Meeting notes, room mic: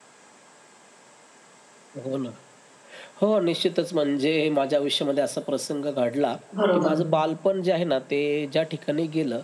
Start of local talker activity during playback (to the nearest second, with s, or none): 7 s